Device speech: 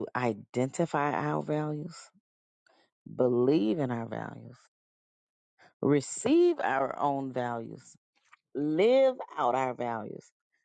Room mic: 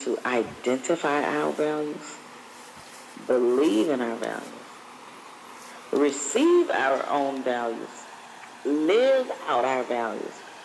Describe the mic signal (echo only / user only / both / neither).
echo only